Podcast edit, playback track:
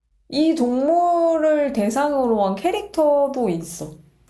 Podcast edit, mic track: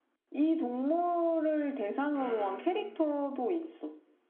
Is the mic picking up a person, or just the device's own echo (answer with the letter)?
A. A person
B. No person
A